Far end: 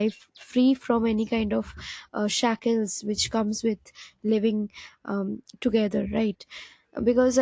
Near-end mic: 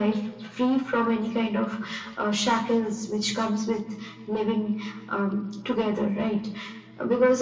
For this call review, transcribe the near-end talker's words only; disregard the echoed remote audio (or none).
none